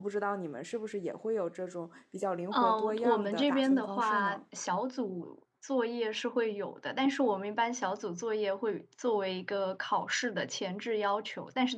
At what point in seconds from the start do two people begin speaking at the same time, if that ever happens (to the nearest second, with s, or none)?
3 s